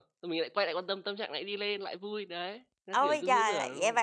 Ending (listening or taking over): taking over